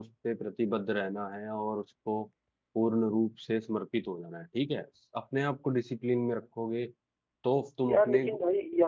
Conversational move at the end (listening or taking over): taking over